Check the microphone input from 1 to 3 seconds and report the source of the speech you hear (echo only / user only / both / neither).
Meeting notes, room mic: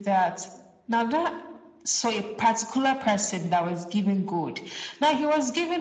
echo only